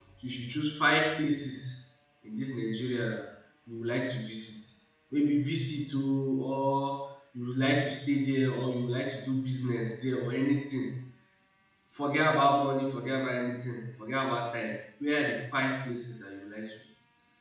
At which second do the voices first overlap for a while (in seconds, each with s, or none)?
none